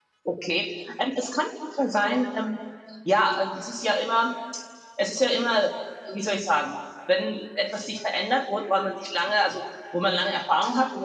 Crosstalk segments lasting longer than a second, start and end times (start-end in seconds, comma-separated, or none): none